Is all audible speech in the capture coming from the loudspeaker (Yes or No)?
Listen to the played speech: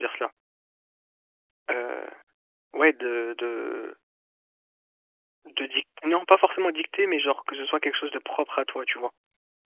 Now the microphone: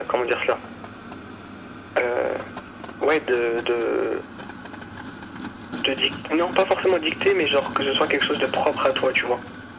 Yes